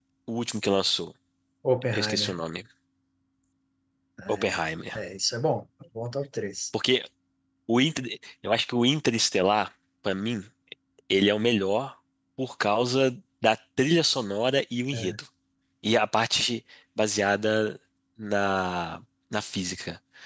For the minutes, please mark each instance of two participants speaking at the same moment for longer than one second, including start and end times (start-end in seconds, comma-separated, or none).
none